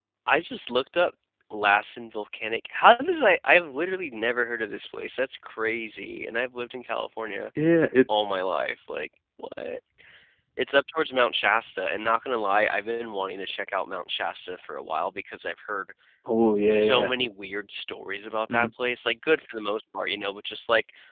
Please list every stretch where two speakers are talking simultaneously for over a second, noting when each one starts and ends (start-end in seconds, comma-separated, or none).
none